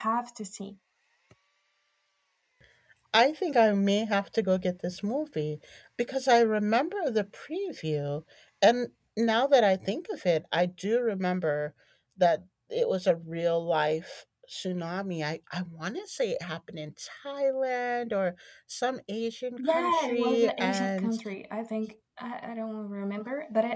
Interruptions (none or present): present